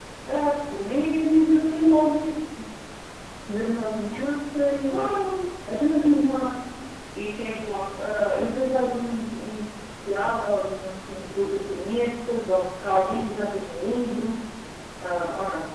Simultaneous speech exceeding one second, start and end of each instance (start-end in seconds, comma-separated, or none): none